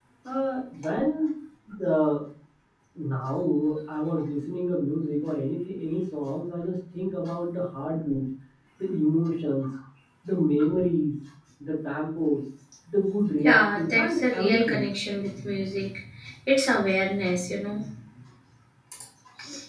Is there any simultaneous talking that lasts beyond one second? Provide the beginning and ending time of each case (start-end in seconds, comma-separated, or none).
13.4-14.8